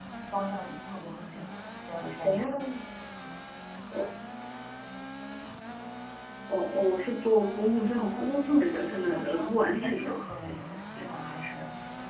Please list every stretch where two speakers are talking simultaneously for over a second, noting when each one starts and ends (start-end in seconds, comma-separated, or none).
7.9-10.1